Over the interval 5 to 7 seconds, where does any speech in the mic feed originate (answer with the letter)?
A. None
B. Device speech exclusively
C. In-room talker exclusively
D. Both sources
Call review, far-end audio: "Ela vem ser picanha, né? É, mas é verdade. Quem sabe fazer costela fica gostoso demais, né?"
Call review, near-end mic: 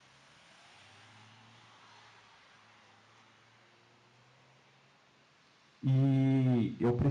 C